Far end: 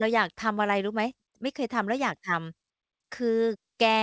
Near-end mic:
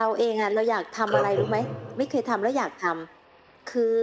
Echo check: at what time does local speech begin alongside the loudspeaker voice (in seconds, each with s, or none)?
1.1 s